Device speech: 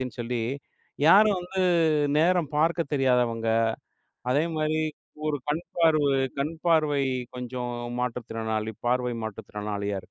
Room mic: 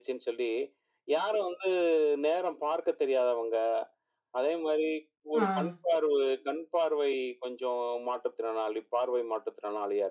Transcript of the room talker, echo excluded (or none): ஆ.